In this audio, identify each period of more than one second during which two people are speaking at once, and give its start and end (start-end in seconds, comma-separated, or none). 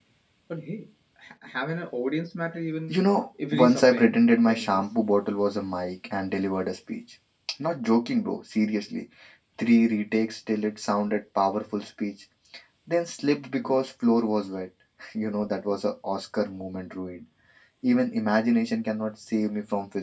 3.5-4.8